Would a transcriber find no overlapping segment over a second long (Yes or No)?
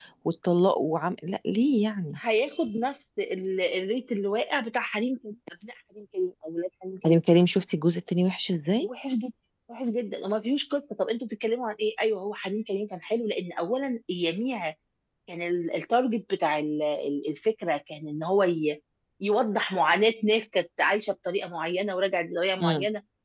Yes